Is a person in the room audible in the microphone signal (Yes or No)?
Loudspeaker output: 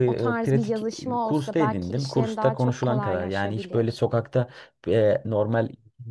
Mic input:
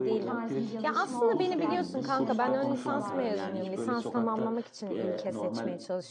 Yes